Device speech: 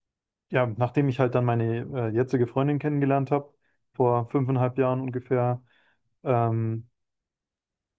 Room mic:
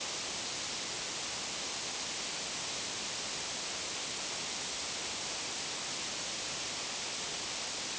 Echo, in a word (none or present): none